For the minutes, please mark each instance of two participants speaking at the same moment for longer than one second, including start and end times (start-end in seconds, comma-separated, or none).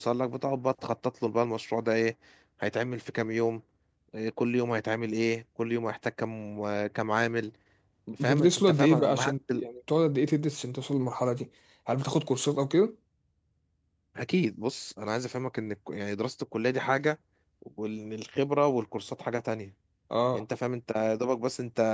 8.2-9.6